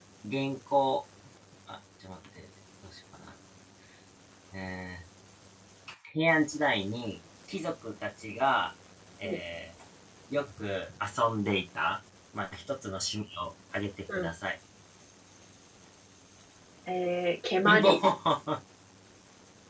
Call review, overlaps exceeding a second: none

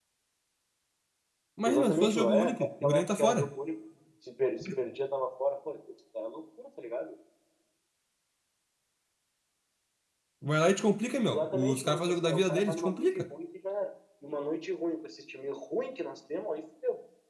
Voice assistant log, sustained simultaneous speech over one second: present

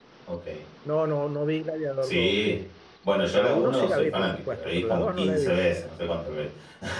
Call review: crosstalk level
present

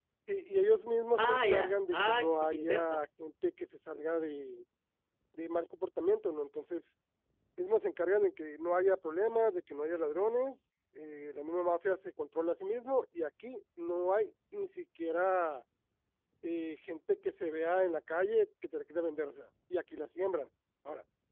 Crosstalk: present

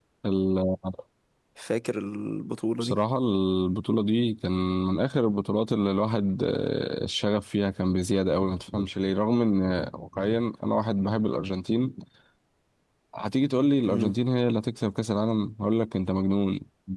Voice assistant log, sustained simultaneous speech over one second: none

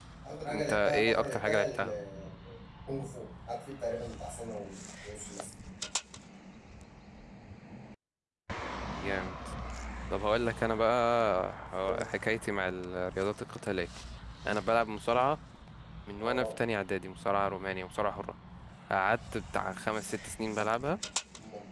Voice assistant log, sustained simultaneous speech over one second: present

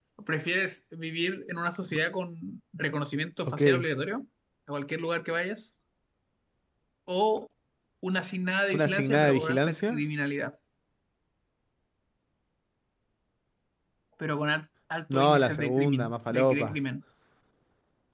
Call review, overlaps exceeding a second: present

